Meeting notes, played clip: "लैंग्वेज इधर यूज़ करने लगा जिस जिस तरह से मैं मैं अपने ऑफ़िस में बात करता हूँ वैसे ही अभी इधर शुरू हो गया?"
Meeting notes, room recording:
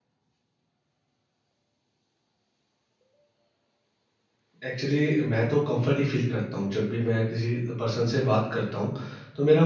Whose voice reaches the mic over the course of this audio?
user only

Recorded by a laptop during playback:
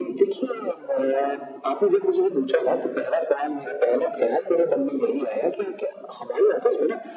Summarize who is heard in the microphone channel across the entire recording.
echo only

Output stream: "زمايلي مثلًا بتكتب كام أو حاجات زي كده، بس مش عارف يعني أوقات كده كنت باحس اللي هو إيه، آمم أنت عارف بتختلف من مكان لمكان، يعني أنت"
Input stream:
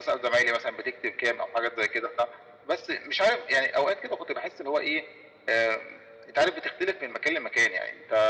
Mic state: echo only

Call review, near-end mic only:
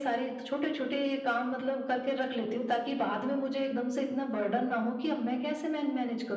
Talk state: echo only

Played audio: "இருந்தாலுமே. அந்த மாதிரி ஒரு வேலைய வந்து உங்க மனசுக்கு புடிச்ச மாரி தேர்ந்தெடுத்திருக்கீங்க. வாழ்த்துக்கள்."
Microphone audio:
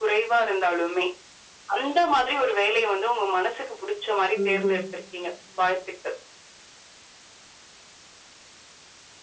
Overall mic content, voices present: both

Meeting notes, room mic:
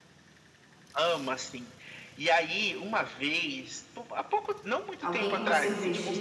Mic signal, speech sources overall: both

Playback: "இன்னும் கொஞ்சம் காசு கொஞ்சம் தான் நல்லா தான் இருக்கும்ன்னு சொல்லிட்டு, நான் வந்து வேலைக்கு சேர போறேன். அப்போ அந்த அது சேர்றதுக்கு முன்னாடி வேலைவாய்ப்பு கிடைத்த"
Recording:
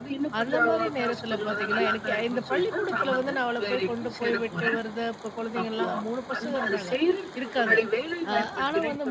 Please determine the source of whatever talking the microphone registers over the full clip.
both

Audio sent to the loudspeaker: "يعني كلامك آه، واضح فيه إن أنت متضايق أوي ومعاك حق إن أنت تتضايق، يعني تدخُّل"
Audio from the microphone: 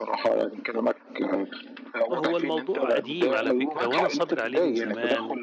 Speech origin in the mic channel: both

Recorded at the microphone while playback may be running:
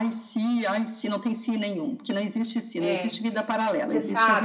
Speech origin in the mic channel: both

